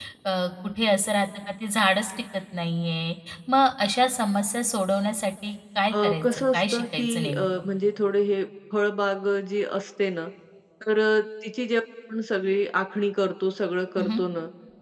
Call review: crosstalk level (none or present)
present